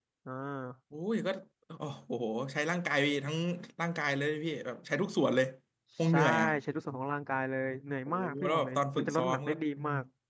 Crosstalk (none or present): present